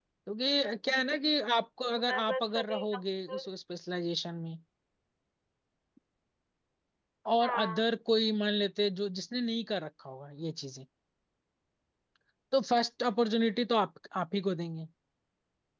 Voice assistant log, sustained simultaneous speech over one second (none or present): present